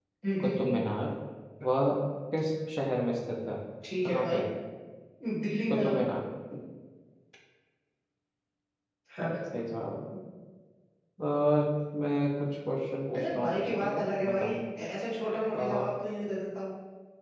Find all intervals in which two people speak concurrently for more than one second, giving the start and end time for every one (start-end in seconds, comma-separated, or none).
13.2-14.5